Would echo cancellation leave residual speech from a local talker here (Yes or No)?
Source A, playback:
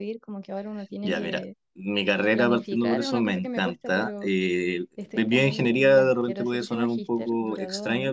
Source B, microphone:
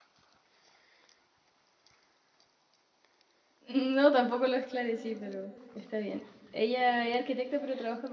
Yes